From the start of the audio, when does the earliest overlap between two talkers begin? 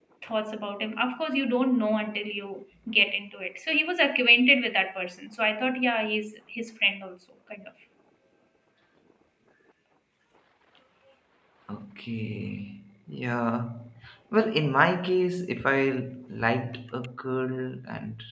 none

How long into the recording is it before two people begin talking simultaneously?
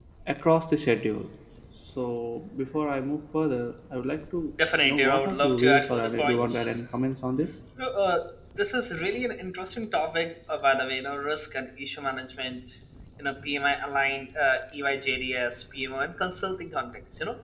4.8 s

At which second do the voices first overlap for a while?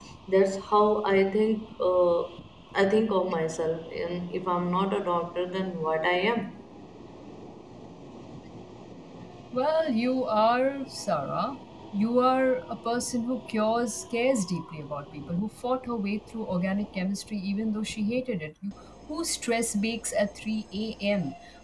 none

